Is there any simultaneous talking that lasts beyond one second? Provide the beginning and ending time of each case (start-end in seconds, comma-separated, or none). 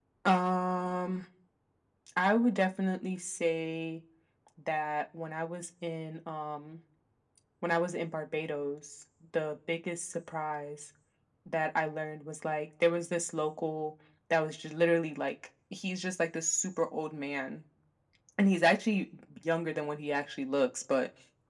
none